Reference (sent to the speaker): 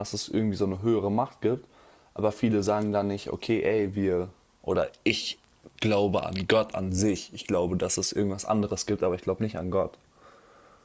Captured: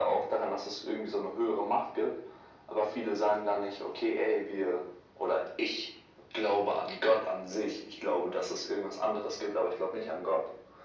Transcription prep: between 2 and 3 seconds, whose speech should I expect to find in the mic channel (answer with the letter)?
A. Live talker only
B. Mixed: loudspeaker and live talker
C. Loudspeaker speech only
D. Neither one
C